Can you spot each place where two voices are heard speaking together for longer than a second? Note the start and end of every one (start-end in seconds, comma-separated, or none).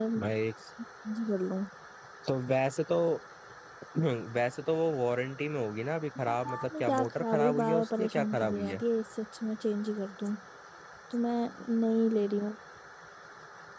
6.3-8.8